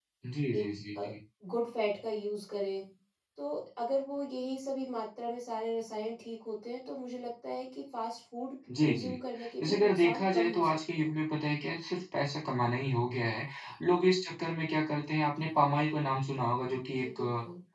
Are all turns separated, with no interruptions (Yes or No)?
No